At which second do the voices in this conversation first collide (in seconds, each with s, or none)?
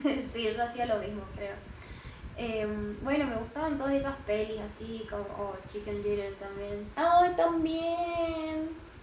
none